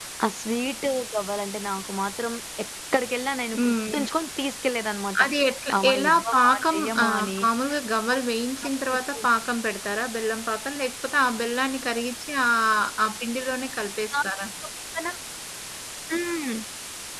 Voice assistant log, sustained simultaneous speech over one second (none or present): present